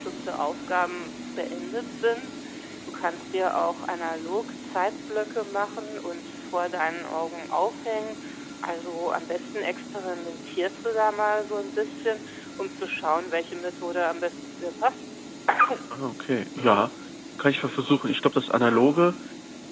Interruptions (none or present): none